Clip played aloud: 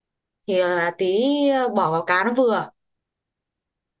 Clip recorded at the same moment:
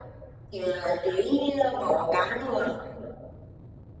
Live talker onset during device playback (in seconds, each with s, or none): none